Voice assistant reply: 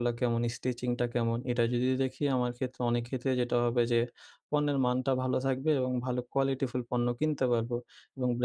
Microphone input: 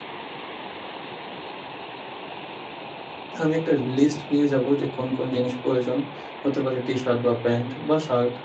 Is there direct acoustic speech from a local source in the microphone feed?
Yes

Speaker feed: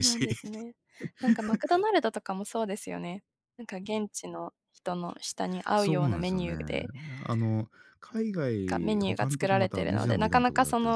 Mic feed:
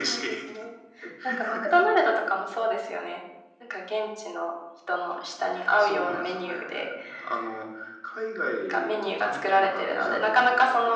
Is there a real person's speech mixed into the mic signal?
No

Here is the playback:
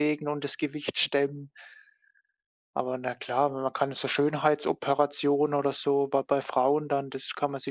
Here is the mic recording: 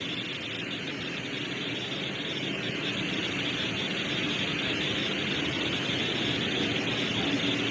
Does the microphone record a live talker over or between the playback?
No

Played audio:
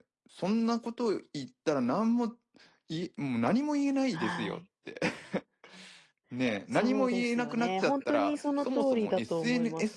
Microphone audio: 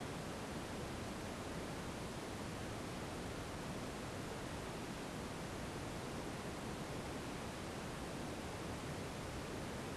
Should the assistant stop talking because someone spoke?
No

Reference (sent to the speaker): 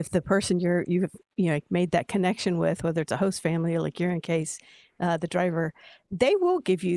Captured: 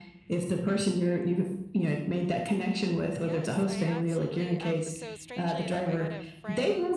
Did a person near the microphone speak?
Yes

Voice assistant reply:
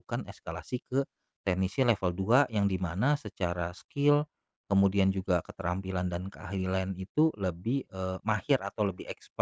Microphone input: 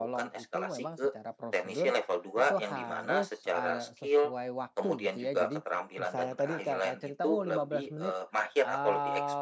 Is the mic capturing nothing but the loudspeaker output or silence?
No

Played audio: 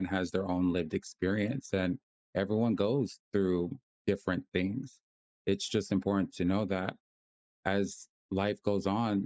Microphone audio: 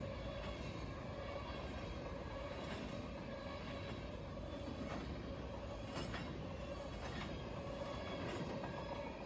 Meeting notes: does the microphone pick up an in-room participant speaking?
No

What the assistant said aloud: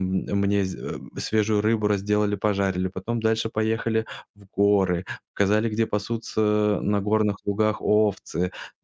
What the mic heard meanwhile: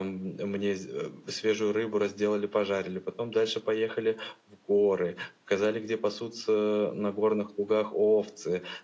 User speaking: No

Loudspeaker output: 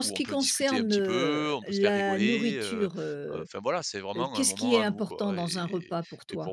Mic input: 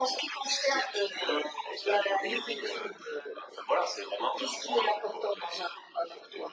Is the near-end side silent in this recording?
Yes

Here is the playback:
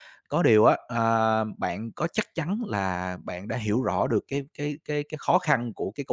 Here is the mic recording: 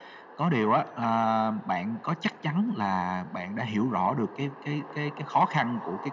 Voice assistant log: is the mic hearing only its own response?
Yes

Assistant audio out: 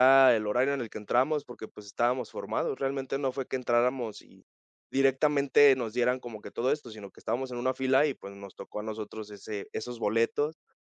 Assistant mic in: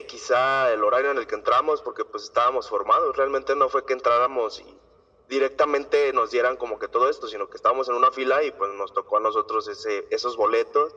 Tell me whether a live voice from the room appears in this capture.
No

